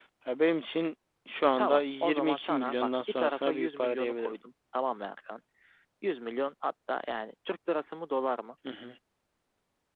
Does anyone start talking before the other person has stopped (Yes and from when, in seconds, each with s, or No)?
Yes, from 1.6 s